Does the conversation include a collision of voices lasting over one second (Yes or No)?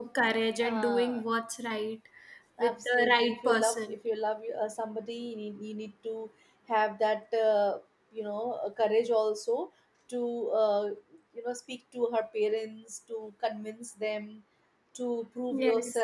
Yes